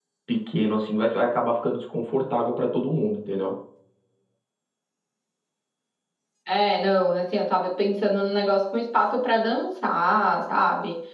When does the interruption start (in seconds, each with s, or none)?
none